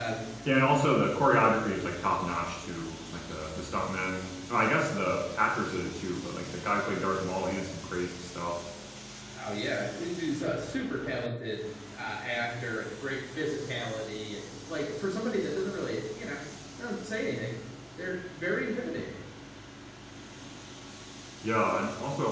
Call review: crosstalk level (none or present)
none